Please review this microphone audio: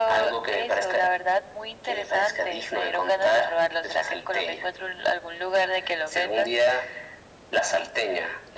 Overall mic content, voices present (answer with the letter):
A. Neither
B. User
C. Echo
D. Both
C